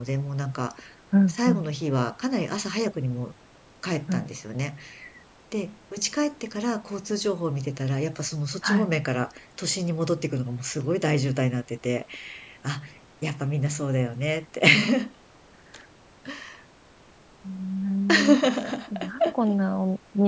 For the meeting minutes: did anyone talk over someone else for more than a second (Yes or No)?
No